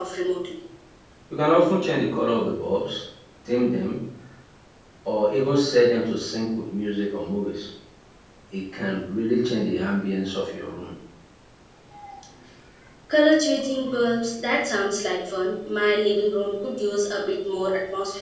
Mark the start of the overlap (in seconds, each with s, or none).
none